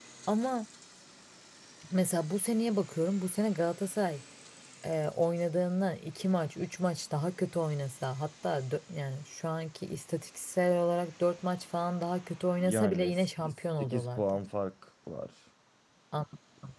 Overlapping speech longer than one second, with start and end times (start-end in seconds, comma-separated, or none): 12.6-14.4